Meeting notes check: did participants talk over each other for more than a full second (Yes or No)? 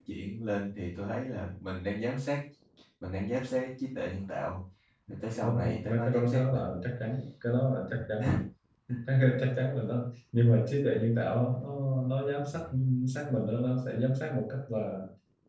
Yes